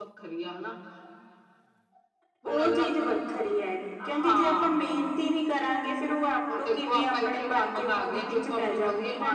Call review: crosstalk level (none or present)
present